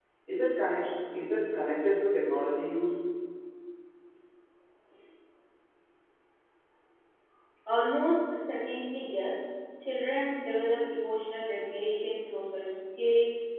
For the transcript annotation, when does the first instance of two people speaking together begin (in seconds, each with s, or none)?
none